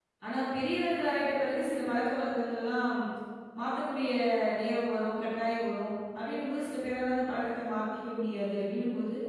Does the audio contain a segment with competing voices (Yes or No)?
No